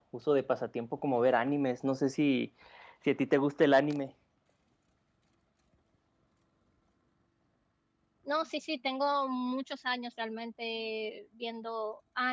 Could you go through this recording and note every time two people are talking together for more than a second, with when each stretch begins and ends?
none

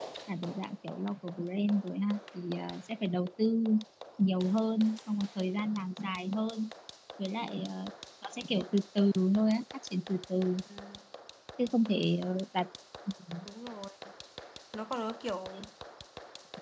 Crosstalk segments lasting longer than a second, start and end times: none

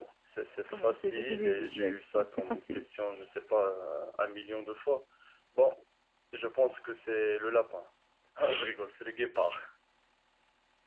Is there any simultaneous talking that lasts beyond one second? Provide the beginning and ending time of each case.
0.7-2.8

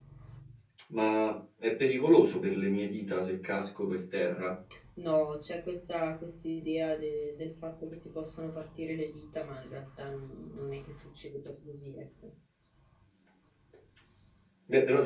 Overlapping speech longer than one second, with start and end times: none

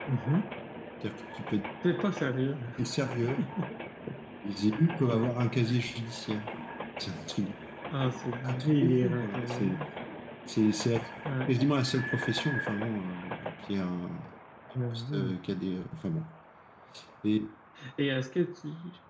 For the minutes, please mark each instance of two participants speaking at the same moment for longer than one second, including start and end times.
8.4-9.8

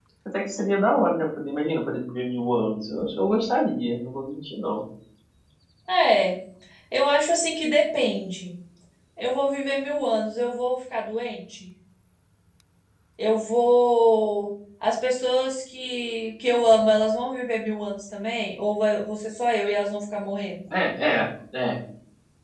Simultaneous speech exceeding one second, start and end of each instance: none

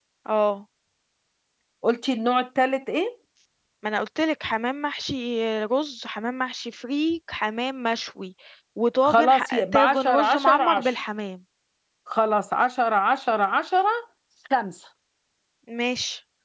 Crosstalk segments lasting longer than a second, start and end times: 9.0-11.0

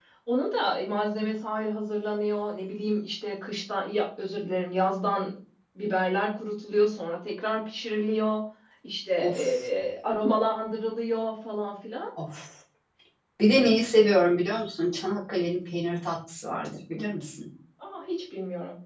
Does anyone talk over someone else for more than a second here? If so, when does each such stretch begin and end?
none

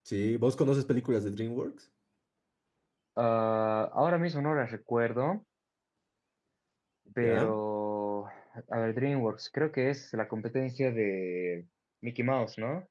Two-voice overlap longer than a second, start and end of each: none

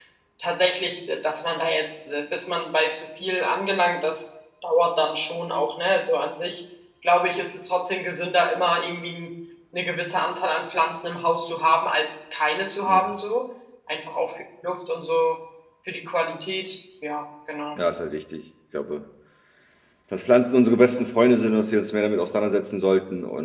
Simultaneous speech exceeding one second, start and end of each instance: none

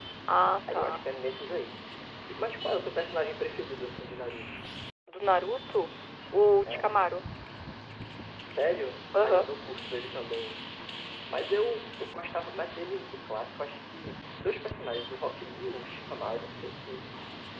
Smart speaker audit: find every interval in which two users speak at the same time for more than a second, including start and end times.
none

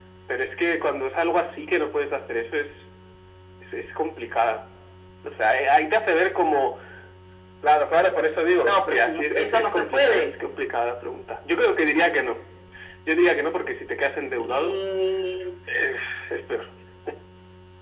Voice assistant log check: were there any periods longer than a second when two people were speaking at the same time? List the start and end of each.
8.6-10.3

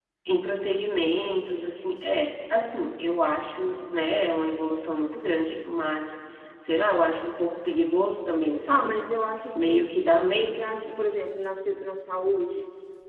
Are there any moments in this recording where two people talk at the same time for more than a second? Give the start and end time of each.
none

